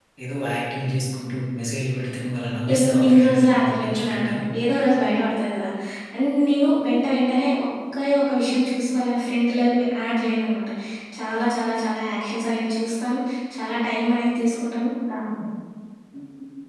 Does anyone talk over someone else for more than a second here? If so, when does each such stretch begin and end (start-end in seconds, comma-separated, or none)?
2.7-4.4